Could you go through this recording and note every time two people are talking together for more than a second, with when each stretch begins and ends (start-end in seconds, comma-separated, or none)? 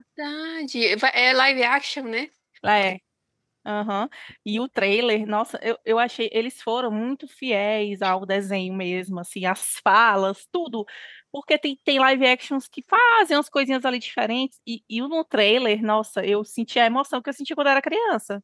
none